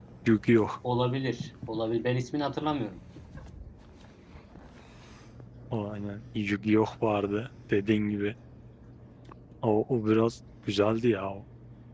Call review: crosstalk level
none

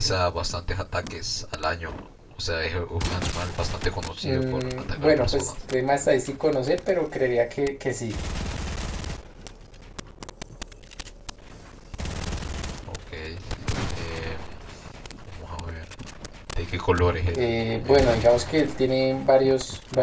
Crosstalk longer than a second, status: present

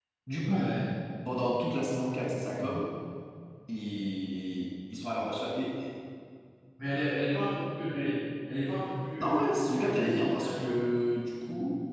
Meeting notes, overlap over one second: present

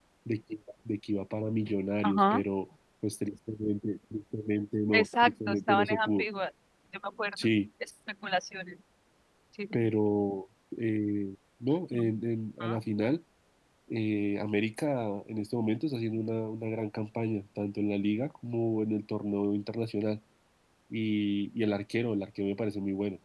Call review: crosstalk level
present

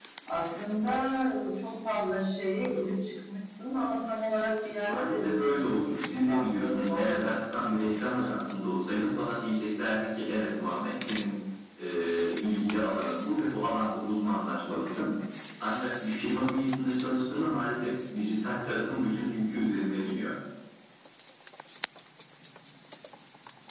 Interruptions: present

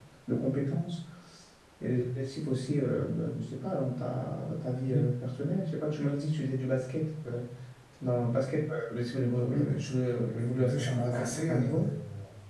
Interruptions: present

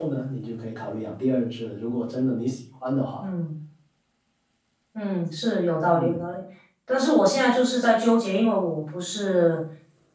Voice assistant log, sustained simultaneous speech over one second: none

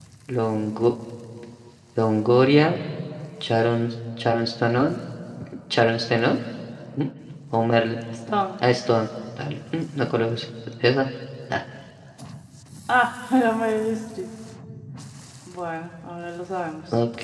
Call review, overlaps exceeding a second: none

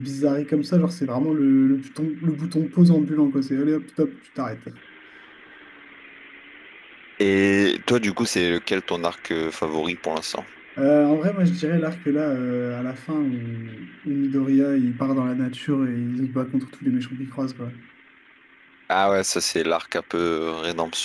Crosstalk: none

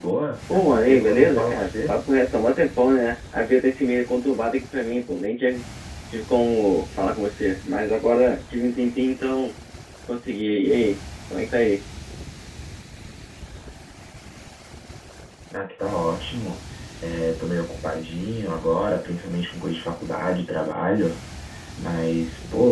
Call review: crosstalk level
present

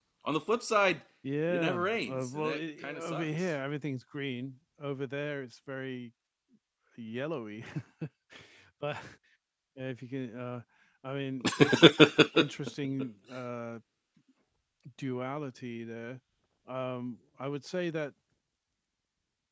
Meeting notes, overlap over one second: present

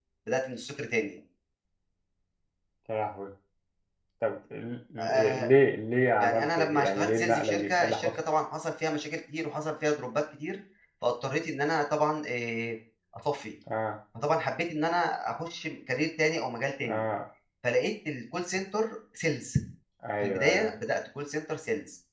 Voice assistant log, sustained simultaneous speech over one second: present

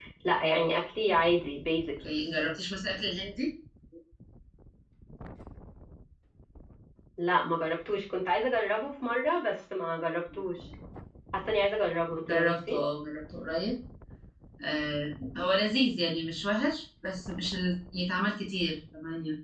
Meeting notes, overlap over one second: none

